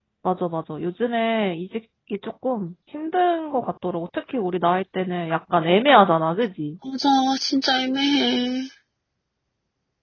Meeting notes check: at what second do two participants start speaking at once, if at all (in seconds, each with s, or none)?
none